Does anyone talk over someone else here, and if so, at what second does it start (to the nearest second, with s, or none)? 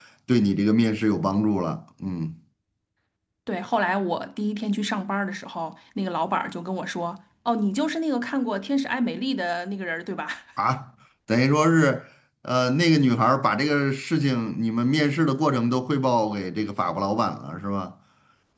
none